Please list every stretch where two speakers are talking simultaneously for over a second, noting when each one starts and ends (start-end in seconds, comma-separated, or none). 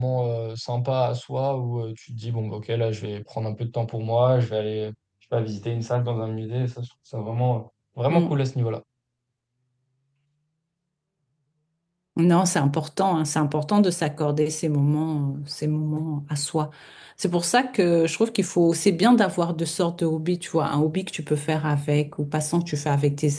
none